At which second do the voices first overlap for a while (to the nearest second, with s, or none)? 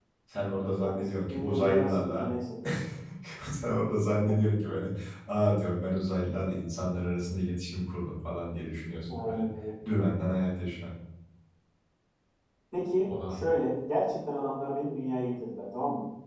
1 s